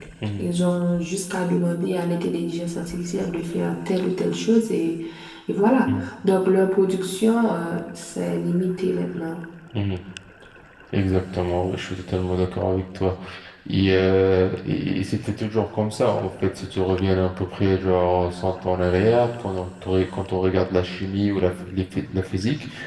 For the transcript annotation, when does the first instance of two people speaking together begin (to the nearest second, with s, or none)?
none